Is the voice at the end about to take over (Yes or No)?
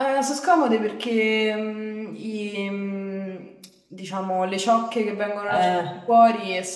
No